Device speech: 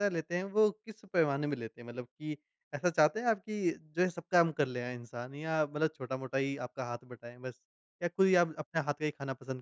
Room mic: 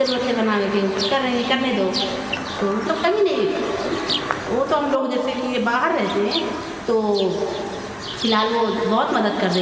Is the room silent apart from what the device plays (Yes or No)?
No